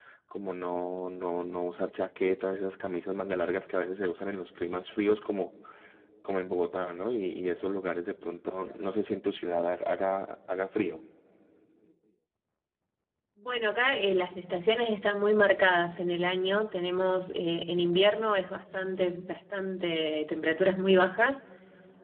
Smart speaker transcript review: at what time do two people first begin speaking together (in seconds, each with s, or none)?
none